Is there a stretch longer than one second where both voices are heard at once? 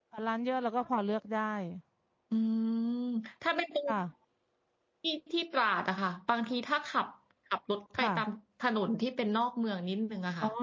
No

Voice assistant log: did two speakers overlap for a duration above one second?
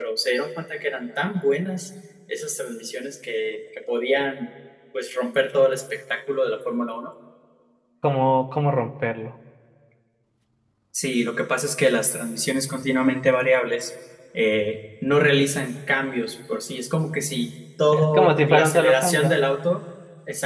Yes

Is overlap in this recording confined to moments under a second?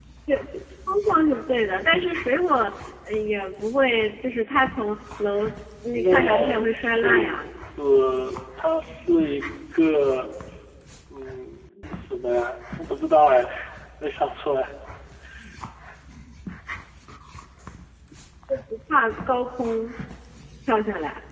No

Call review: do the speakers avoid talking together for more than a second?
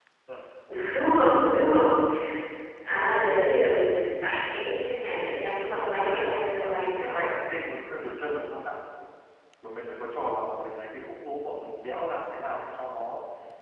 No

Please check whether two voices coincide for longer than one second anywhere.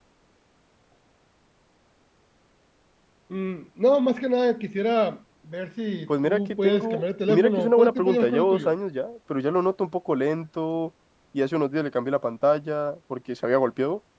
Yes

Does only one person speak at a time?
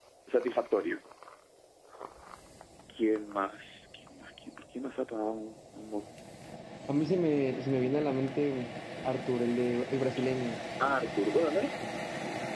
Yes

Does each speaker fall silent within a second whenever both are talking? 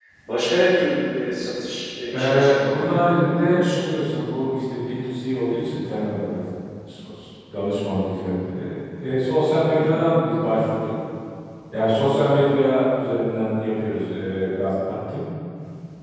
No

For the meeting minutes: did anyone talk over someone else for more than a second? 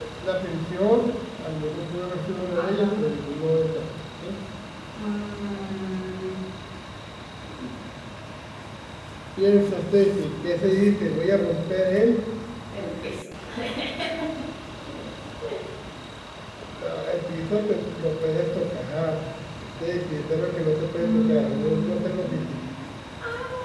Yes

